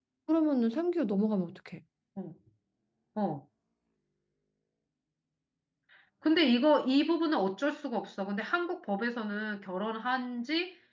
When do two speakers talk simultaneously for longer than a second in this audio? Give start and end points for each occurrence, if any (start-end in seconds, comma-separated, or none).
none